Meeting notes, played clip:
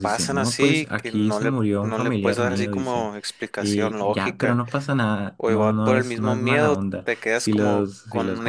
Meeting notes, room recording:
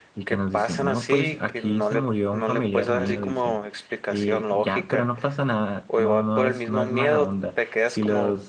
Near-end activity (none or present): none